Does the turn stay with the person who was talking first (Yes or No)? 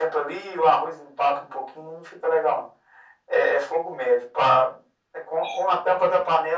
Yes